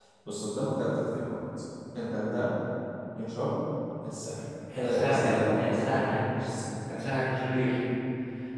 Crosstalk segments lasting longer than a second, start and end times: 4.8-6.3

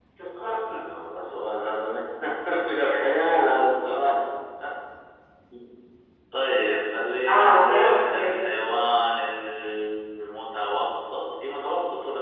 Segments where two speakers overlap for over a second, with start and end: 7.3-8.9

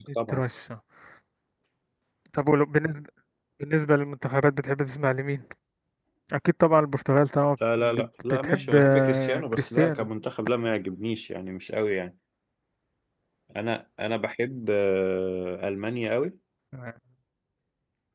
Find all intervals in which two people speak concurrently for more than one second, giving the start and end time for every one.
7.8-10.1

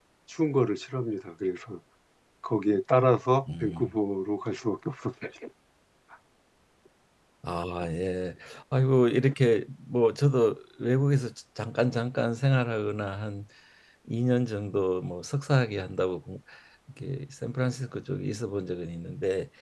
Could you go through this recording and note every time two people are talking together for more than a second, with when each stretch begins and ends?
none

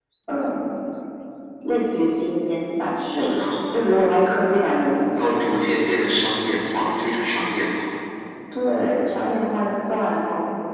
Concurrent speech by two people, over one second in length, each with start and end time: none

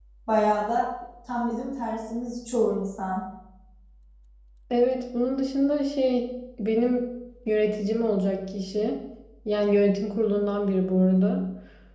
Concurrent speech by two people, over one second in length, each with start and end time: none

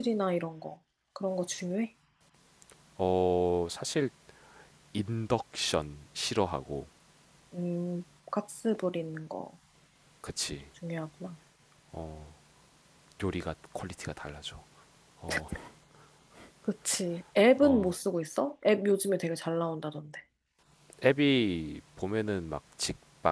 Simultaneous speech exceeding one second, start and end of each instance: none

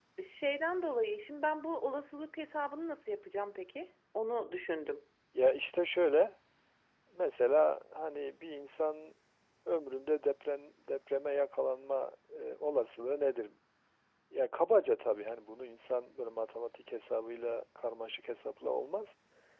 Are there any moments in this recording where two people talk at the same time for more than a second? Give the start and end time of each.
none

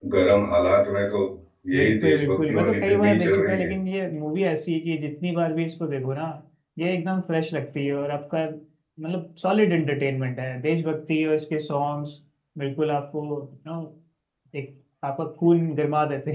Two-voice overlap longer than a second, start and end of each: 1.7-3.7

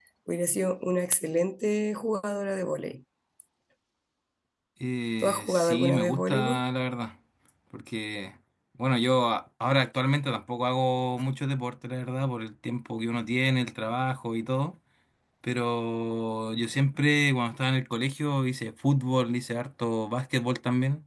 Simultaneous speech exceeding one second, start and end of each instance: 5.2-6.6

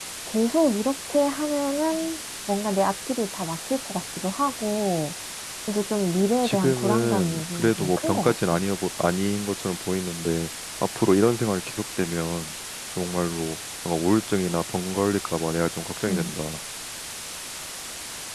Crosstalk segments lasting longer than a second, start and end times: 6.4-8.6

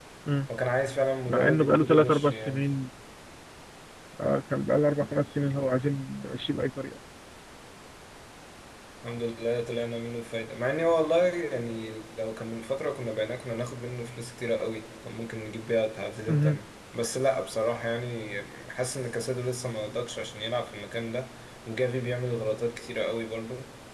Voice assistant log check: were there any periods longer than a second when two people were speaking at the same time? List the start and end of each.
1.3-2.6

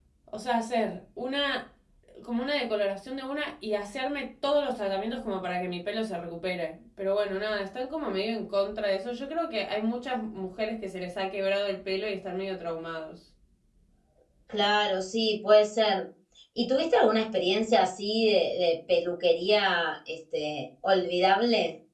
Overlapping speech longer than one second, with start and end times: none

